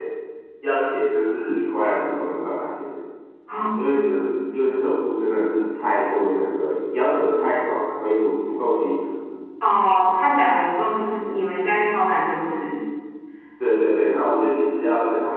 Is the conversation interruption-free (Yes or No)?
Yes